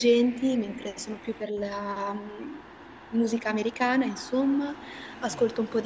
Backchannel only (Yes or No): Yes